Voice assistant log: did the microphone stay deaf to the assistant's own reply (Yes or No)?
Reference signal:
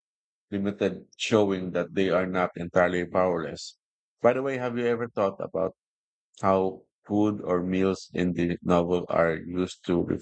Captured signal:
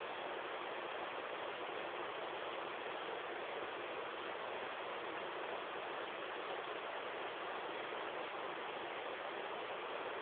Yes